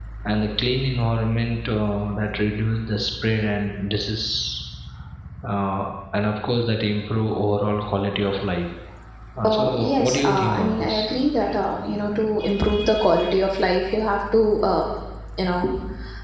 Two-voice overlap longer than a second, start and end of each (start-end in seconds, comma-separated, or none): 9.4-11.1